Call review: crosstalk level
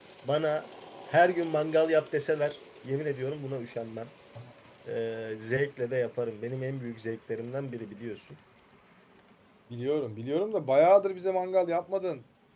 none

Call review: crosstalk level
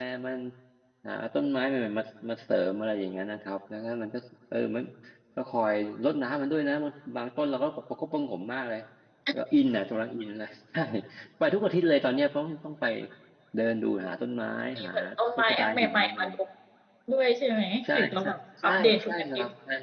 present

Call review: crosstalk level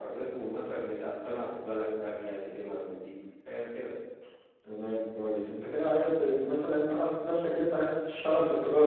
none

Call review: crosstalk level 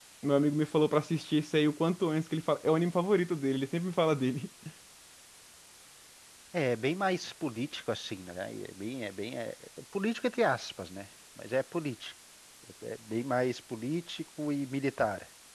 none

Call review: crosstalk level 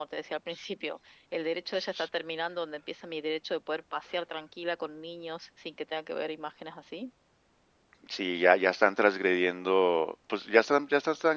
none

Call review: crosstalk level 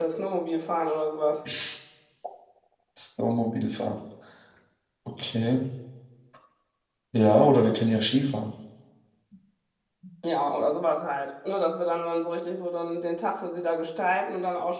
none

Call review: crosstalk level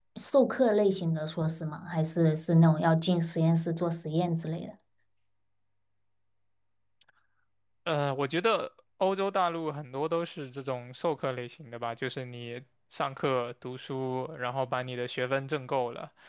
none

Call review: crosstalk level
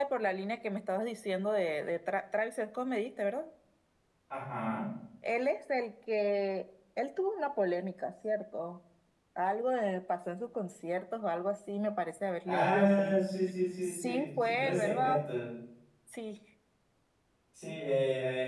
present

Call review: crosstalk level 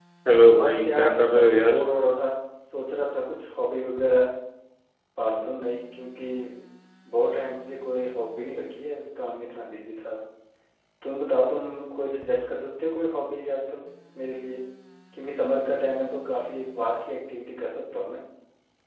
present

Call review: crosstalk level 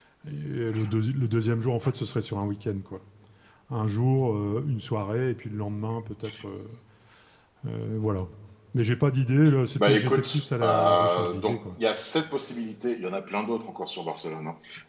present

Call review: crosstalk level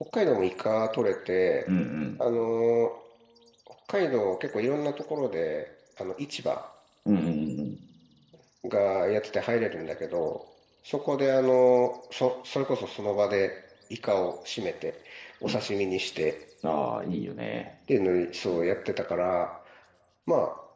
none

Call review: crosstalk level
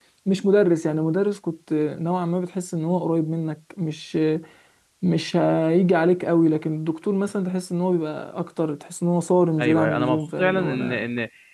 present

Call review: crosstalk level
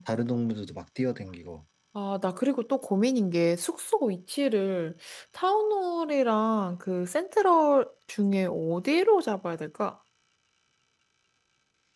none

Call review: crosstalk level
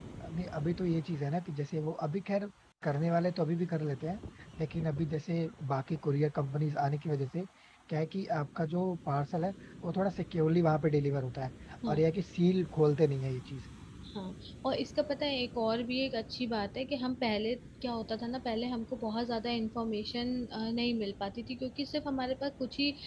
none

